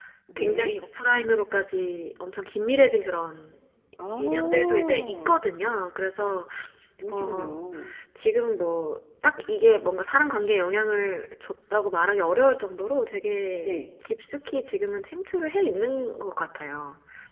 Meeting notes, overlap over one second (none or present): present